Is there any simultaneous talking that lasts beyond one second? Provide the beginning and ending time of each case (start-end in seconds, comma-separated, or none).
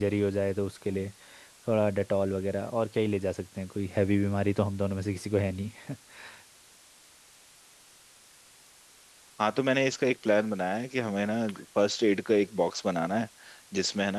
none